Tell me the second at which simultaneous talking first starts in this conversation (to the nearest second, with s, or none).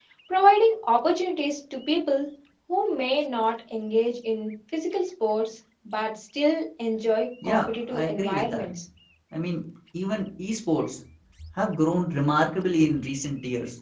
7 s